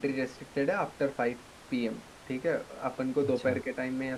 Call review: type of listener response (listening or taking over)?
listening